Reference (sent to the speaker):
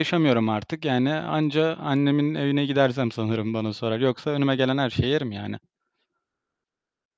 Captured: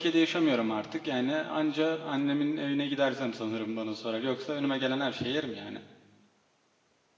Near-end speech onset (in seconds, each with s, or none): none